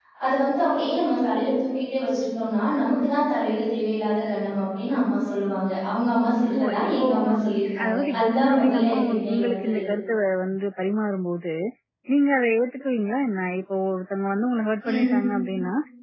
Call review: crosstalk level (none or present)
present